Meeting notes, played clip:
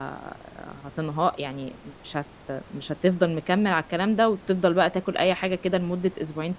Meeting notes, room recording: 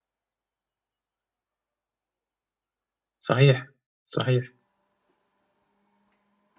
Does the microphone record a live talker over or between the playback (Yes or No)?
Yes